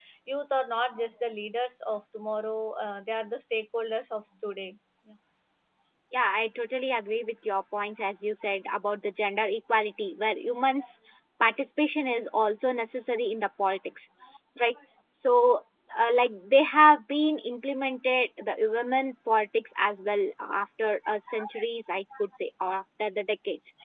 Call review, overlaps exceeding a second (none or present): none